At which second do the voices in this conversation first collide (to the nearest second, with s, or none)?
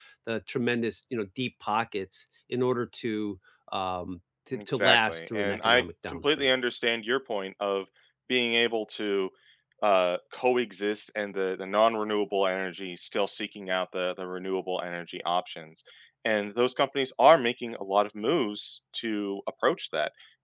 5 s